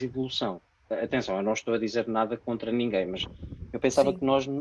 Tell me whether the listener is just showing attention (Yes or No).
Yes